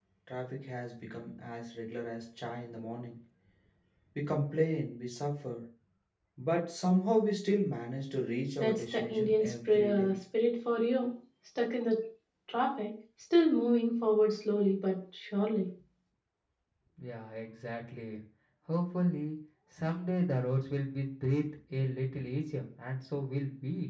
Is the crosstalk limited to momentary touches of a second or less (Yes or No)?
No